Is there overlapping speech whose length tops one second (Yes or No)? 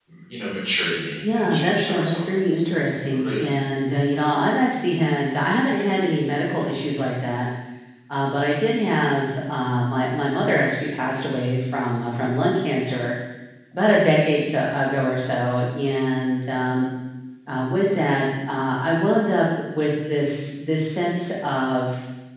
Yes